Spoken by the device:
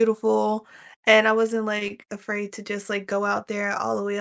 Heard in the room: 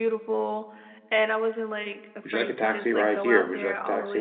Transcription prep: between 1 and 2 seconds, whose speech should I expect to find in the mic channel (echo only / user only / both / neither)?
echo only